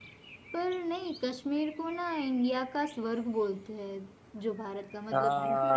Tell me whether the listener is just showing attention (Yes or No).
Yes